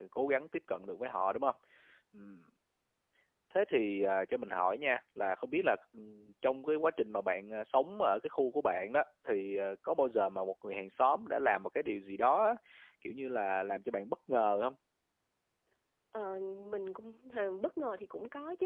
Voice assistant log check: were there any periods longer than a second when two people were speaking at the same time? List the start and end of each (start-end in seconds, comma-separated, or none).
none